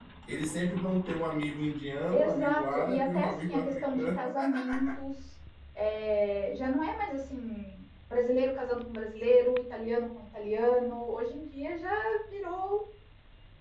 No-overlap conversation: No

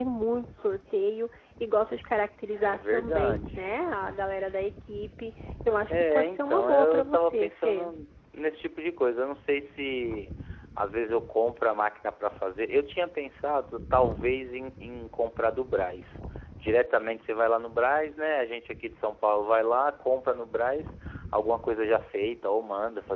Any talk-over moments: Yes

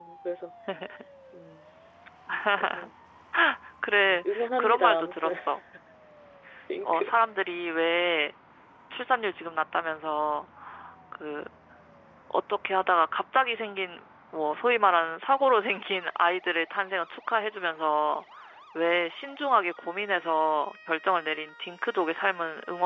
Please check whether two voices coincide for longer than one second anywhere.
Yes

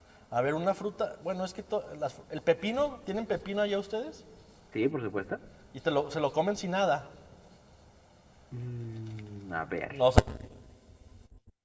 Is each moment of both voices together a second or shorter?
Yes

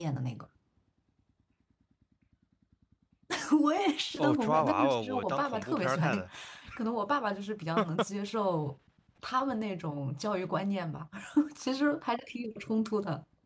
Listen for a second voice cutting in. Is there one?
Yes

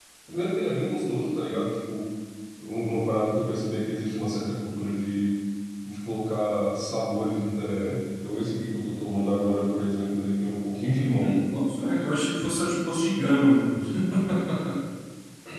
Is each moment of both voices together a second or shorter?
Yes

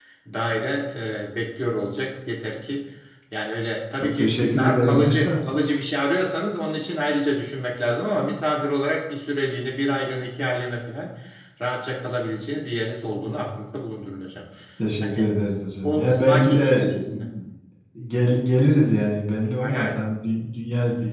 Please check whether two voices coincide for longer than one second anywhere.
Yes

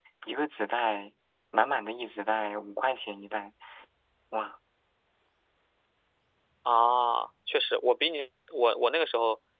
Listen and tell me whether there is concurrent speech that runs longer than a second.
No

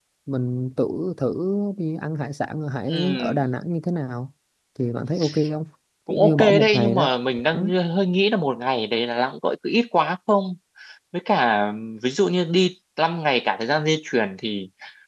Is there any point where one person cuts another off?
Yes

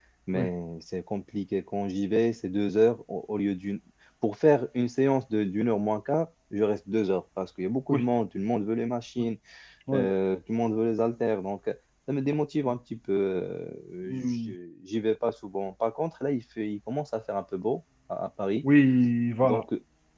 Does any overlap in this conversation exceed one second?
No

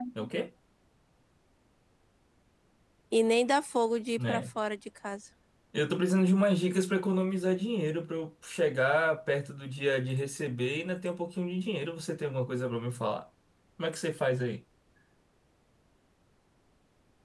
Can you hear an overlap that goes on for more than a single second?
No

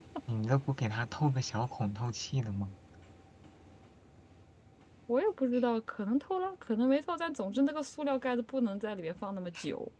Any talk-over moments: No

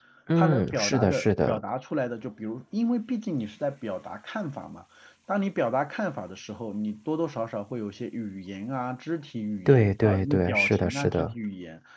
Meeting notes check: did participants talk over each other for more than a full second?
Yes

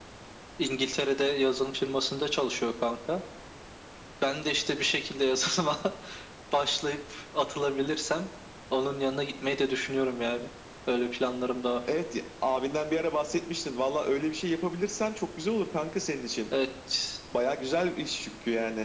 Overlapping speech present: No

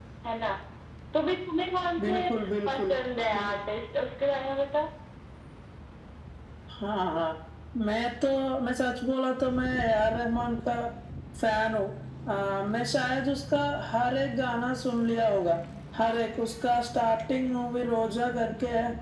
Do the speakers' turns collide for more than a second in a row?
No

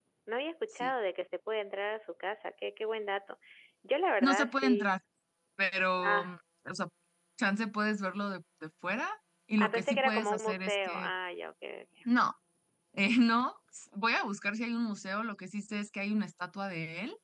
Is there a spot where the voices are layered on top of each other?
Yes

